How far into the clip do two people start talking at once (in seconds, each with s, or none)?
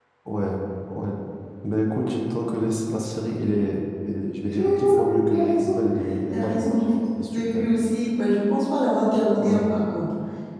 4.6 s